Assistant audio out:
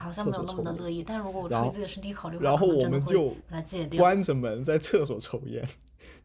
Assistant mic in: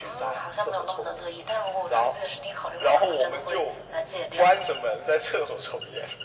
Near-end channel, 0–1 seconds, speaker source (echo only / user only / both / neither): echo only